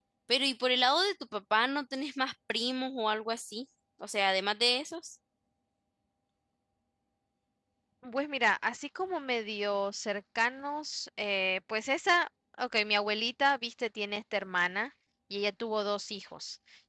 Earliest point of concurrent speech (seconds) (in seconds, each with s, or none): none